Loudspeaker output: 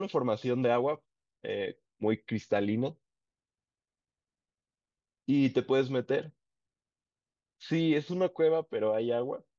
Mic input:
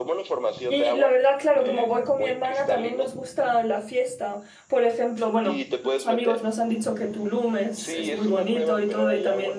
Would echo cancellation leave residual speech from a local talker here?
Yes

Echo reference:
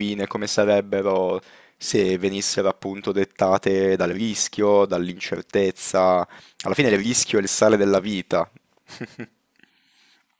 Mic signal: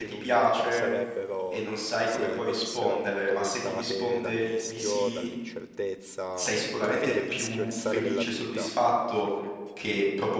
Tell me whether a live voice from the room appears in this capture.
Yes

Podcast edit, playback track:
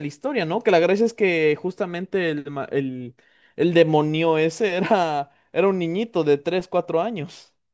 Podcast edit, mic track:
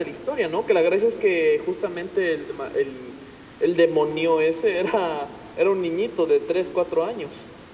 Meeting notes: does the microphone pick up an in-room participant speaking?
No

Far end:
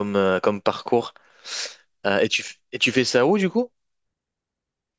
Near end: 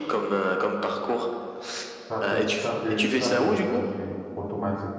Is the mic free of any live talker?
No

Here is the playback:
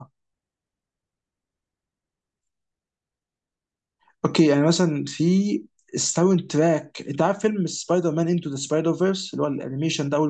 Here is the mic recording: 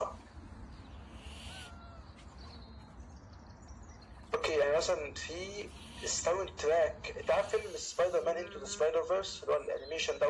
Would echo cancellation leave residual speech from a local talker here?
No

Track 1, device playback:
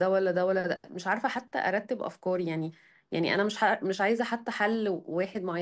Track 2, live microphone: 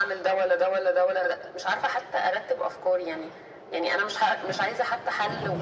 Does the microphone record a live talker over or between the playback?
No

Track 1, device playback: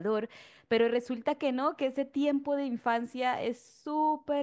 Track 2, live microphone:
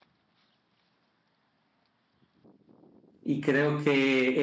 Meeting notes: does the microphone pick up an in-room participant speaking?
Yes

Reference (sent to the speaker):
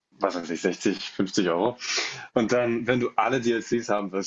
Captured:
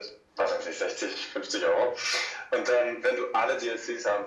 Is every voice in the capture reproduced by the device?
Yes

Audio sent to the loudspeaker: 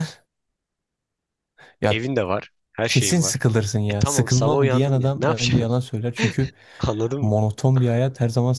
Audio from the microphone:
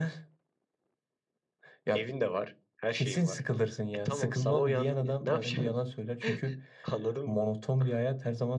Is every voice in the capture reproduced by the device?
Yes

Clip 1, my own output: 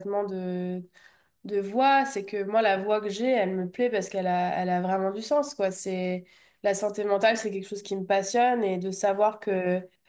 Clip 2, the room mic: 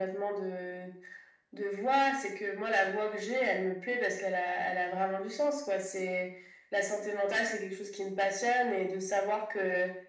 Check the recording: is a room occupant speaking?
No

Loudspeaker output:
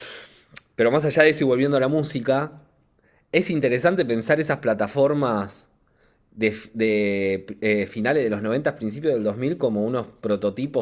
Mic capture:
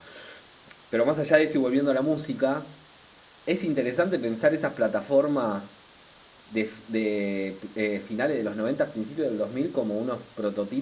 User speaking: No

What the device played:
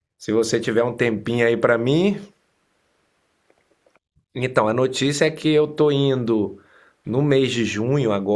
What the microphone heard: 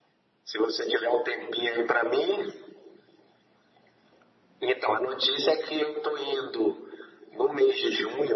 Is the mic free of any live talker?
Yes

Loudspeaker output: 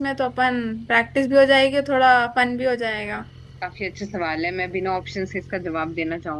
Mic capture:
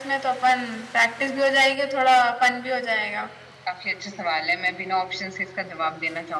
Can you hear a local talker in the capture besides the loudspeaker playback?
No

